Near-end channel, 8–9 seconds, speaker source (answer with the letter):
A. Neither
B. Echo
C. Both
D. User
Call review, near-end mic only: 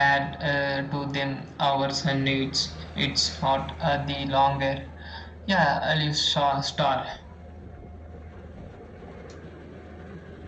A